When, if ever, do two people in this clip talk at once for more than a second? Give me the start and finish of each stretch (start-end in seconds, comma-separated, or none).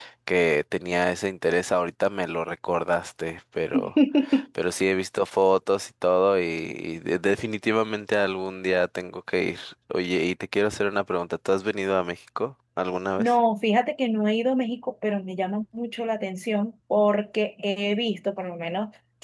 none